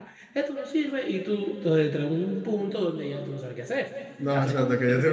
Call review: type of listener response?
taking over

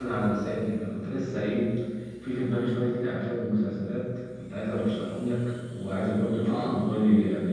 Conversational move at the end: listening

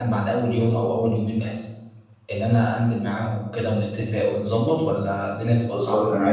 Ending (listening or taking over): taking over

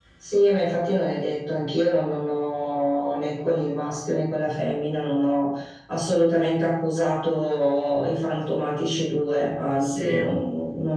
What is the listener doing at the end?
listening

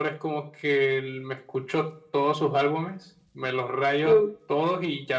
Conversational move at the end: listening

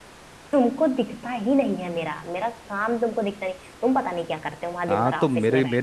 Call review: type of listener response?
taking over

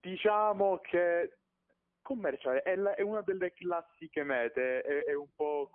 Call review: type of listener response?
listening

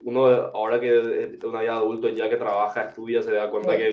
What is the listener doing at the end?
listening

